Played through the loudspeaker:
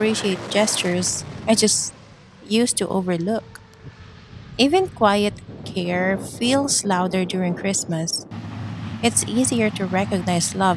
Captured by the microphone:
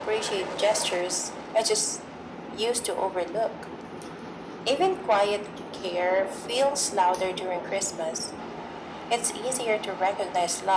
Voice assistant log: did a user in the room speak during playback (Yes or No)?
No